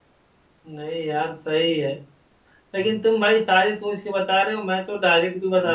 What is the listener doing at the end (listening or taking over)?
listening